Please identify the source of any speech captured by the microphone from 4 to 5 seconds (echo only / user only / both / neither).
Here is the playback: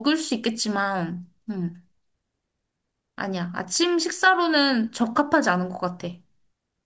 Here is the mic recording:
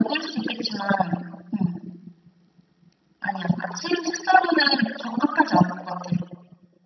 echo only